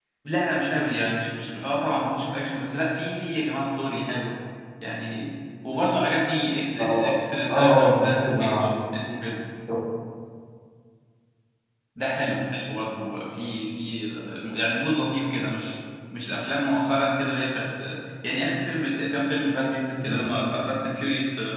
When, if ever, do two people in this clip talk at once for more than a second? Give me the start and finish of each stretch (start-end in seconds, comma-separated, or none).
7.5-8.7